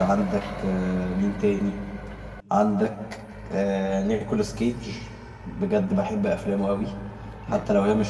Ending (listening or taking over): listening